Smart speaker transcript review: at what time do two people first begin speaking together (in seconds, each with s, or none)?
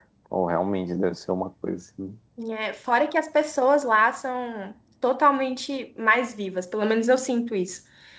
none